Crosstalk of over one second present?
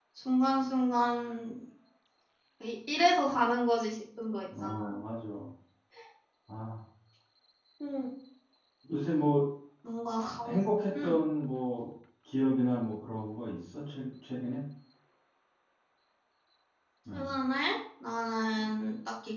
No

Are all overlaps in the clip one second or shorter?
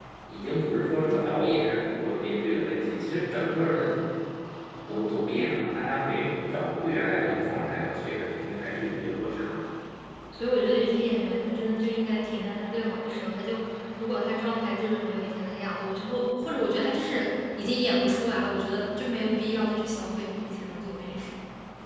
Yes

